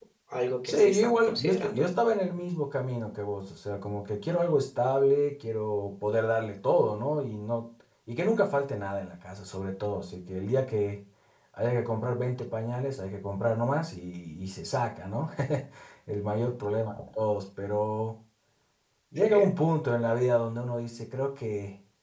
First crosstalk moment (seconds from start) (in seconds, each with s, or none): 0.7 s